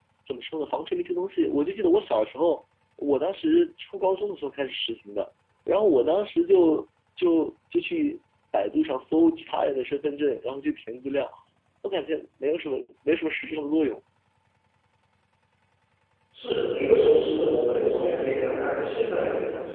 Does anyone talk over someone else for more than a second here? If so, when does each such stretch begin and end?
none

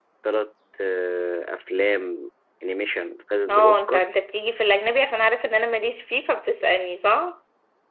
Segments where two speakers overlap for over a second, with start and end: none

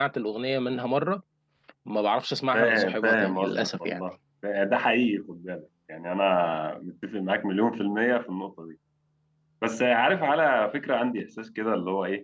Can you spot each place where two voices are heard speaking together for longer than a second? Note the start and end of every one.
2.5-4.0

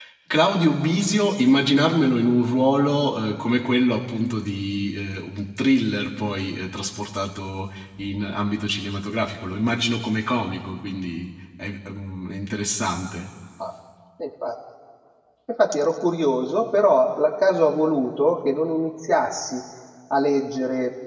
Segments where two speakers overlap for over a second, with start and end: none

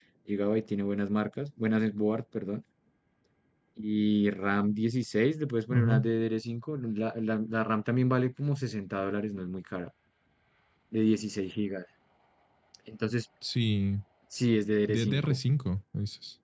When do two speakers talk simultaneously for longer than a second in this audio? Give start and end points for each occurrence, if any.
none

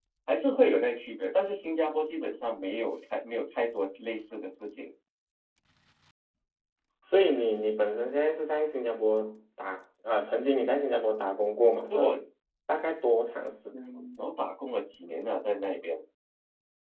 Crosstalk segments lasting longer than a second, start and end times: none

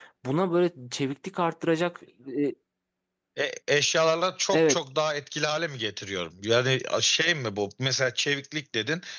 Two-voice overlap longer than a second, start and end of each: none

